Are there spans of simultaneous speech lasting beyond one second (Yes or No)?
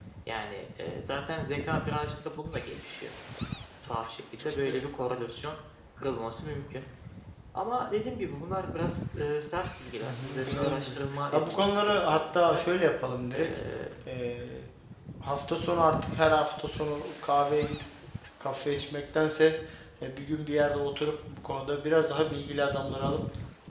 Yes